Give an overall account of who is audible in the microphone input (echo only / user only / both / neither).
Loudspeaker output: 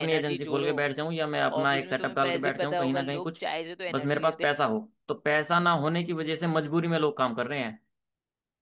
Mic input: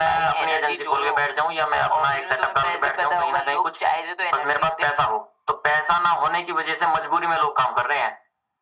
echo only